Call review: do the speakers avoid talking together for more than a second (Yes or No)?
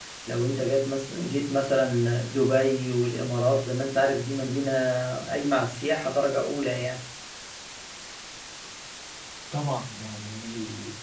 Yes